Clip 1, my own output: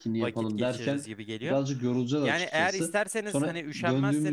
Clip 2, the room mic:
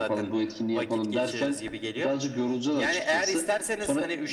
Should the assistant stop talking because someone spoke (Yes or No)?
No